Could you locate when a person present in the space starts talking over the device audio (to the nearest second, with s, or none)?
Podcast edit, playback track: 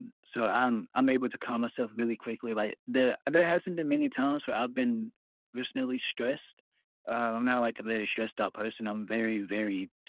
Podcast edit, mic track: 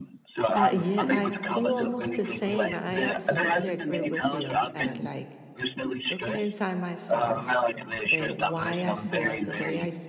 1 s